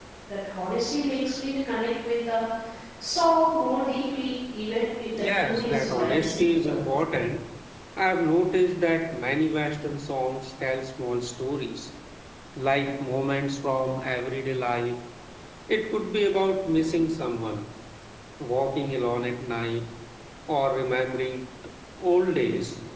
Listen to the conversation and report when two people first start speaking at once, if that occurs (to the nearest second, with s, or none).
5 s